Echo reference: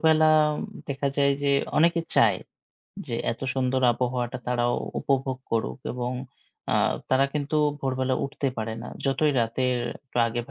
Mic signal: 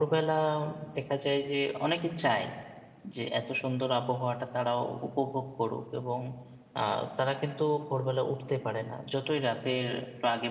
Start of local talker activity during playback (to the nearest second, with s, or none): none